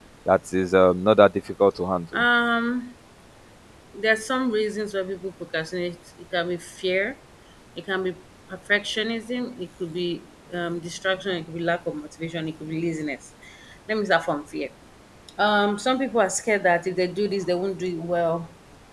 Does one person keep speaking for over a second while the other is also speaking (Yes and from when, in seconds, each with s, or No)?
No